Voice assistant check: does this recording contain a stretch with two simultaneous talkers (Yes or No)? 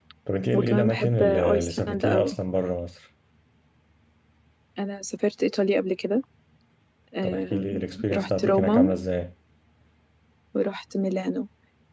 Yes